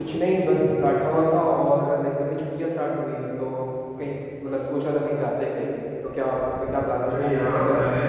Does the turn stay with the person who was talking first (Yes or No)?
No